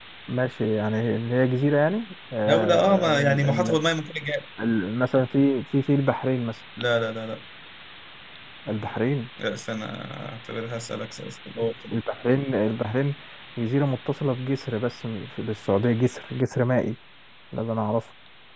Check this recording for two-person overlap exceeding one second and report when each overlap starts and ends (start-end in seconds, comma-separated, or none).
2.5-3.8